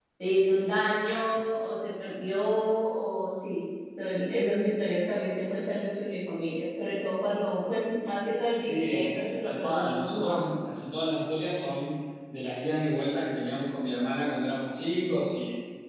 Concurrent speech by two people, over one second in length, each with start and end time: 8.6-10.4

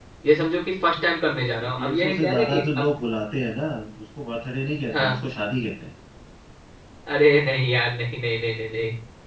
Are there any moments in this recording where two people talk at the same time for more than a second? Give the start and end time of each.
1.6-2.9

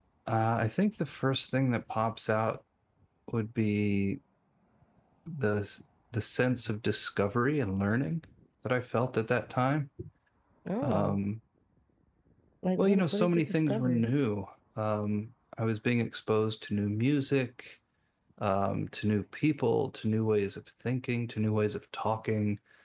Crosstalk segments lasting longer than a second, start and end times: 12.8-14.0

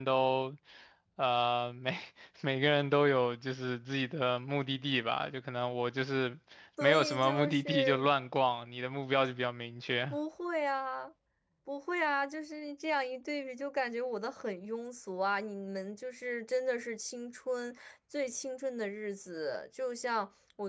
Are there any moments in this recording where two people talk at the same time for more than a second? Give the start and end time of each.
6.8-8.1

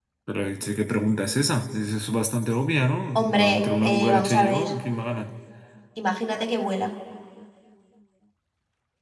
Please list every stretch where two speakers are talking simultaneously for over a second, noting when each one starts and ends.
3.1-4.7

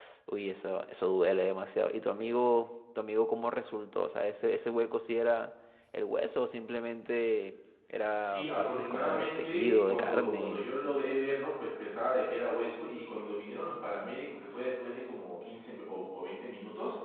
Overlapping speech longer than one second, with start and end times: 8.2-10.7

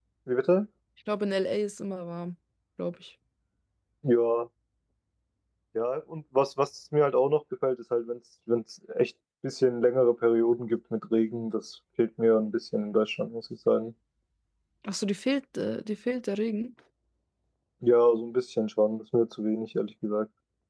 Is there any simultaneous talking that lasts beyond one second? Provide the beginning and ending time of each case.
none

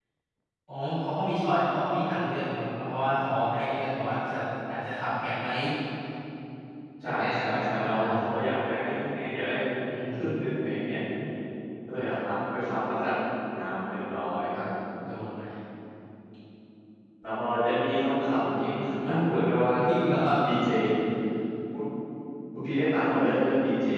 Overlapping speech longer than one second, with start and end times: 7.0-8.4

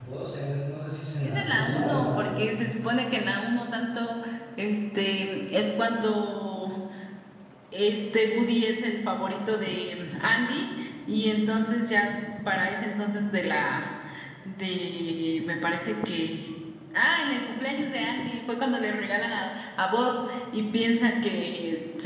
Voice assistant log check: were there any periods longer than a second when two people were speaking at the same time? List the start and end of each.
1.2-2.5

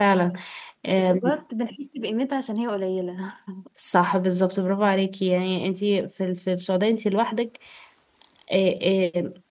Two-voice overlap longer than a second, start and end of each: none

